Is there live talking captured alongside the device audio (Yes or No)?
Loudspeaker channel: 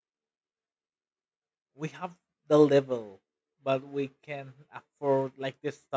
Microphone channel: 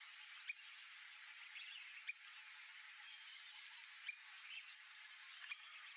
No